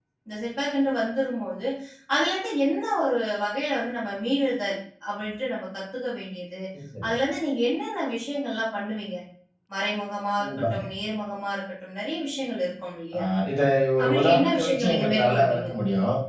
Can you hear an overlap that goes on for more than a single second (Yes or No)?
Yes